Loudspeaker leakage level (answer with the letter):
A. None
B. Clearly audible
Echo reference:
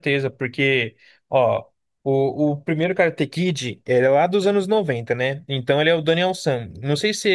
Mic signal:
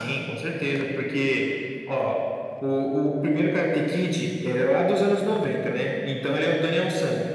B